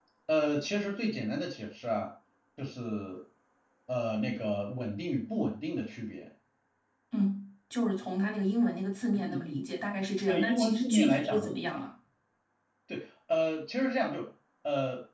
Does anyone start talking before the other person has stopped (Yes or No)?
Yes